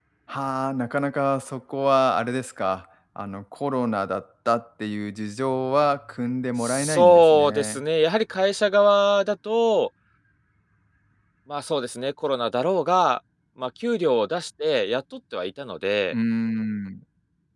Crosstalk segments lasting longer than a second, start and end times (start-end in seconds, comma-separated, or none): 6.6-7.8